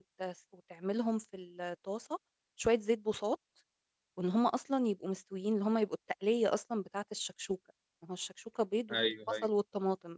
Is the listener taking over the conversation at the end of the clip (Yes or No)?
No